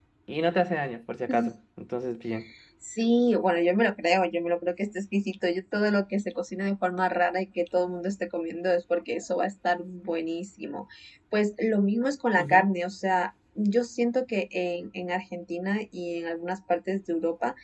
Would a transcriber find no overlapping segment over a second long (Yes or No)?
Yes